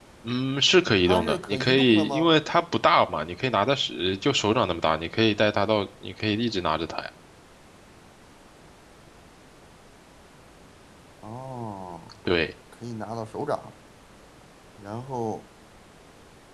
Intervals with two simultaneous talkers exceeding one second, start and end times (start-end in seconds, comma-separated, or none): 1.0-2.3